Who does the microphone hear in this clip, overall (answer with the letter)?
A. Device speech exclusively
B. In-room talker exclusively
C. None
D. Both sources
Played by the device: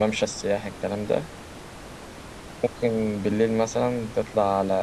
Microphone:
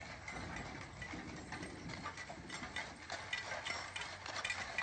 C